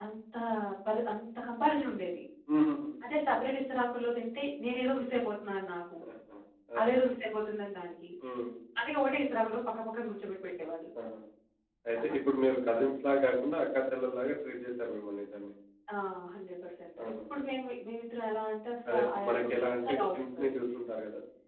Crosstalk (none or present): present